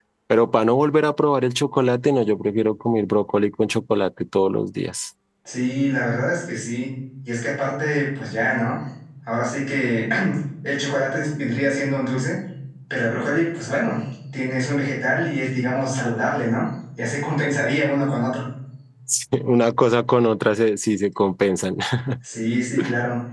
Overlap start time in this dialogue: none

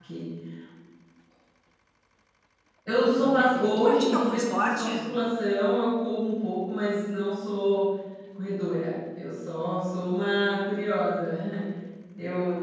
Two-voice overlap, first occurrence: 3.1 s

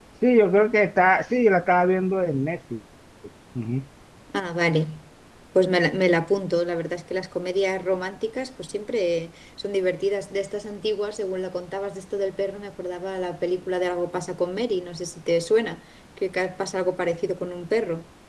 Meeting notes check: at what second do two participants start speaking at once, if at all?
none

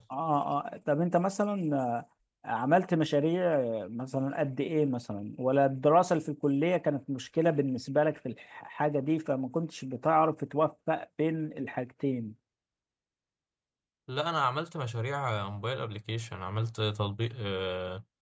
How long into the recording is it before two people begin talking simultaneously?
none

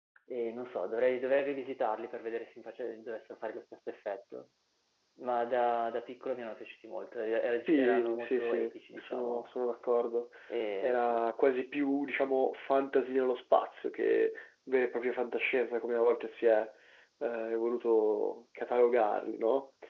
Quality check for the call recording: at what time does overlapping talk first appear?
7.7 s

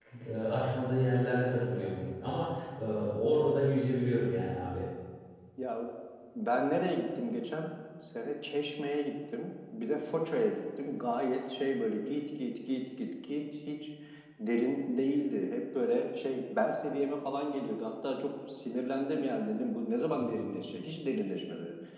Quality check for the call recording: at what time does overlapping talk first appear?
none

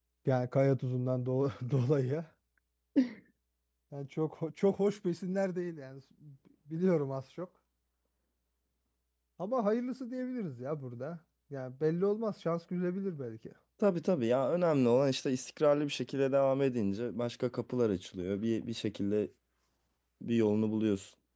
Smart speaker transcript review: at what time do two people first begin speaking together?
none

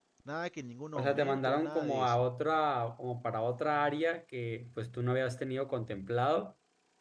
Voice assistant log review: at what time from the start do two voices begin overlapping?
0.9 s

